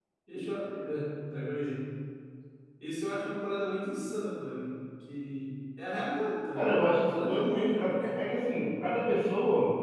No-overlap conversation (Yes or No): No